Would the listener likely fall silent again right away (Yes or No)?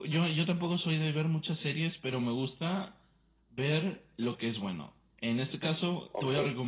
Yes